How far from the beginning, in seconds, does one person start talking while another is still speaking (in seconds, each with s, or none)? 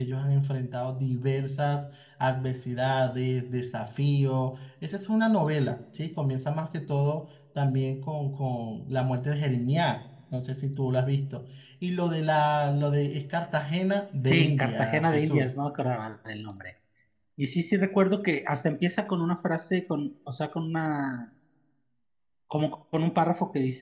14.2 s